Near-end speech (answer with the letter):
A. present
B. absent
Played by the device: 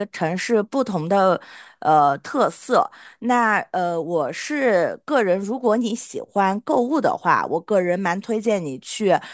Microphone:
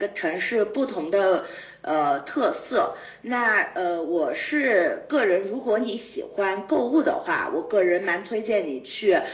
B